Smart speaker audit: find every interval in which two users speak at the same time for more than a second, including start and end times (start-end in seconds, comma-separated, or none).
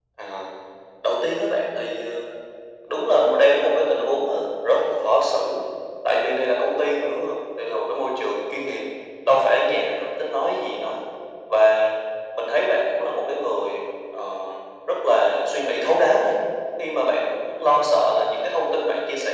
none